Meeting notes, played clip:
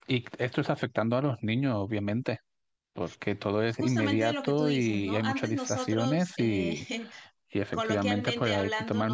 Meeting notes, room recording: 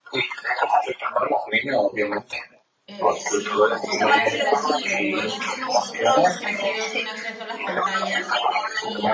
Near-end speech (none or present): present